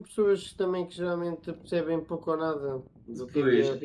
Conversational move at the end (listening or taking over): listening